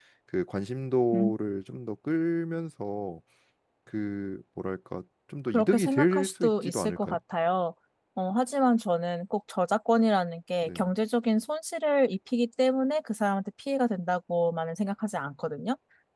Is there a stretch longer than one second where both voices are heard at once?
Yes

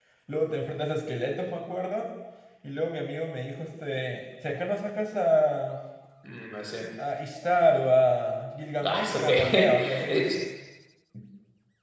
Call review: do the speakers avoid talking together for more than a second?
No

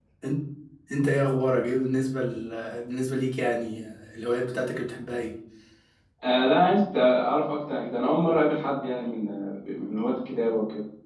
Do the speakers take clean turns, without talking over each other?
Yes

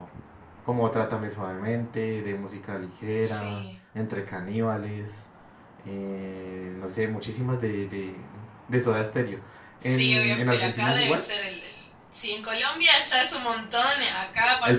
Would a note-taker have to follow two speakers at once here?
Yes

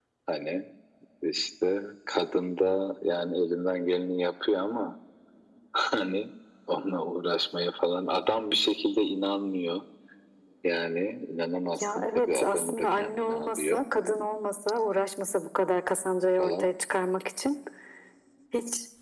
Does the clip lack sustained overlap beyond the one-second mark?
No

